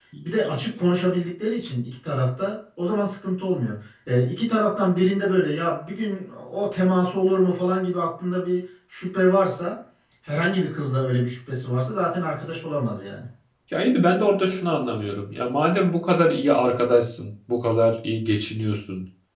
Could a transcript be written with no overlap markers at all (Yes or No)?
Yes